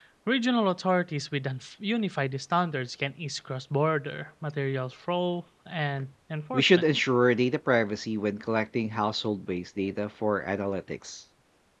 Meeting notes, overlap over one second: none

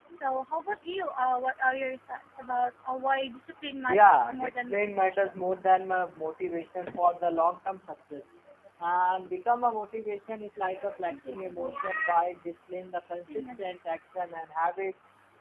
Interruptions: present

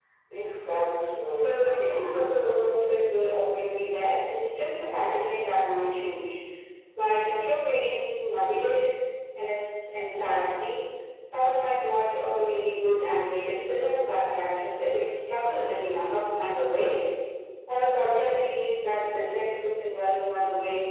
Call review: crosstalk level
present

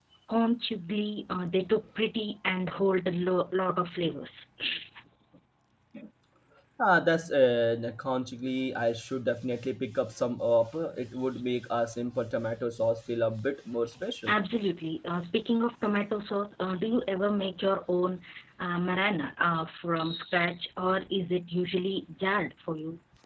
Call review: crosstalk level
none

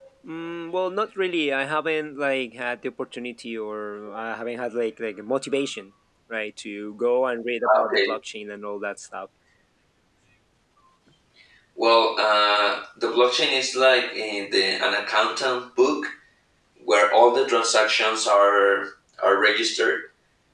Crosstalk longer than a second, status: none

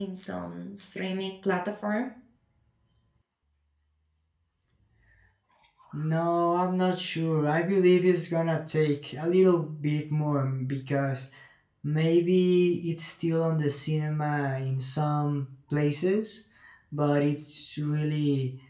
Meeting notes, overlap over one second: none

